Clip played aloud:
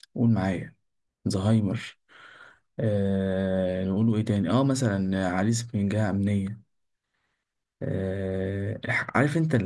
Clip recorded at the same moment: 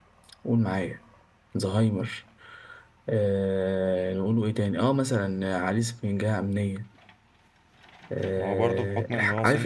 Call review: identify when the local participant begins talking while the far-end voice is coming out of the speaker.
8.4 s

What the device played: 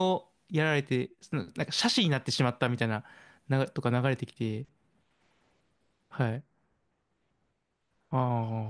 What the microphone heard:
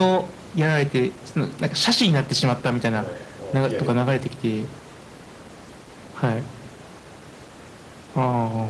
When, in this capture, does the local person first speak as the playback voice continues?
2.9 s

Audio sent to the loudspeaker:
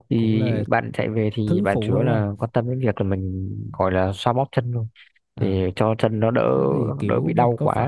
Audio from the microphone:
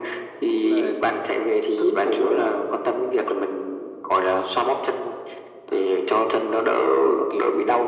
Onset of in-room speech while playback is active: none

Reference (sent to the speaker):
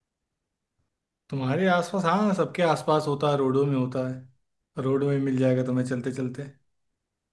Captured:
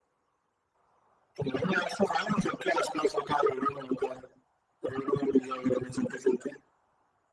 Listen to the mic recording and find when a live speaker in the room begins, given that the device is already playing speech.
none

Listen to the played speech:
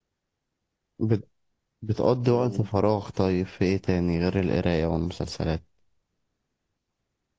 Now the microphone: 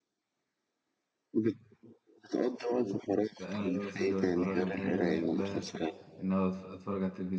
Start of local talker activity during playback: 3.4 s

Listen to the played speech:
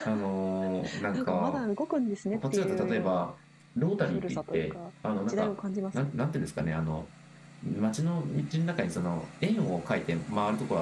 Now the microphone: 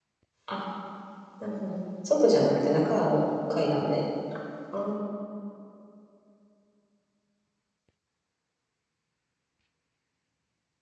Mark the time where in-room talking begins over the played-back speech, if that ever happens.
0.5 s

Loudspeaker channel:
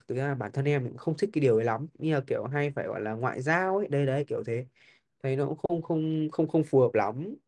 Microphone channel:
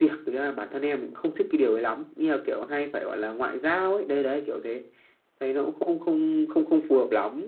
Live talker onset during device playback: none

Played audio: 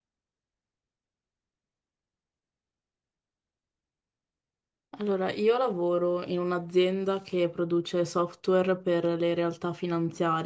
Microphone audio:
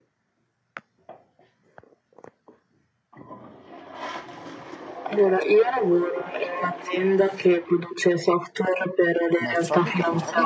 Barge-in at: 9.4 s

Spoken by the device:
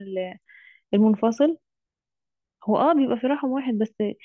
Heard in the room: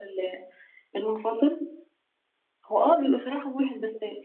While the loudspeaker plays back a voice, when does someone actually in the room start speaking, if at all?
none

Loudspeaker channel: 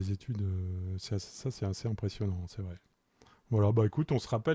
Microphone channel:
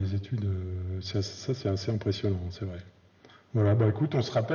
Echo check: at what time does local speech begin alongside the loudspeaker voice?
none

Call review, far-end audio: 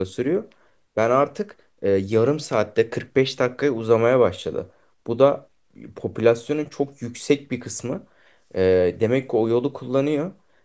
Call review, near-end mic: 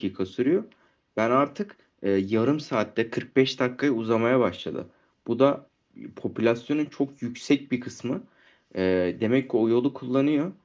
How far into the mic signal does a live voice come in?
none

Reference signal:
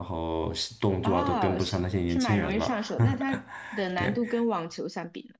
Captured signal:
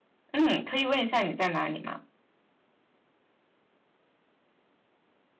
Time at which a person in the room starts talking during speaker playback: 0.3 s

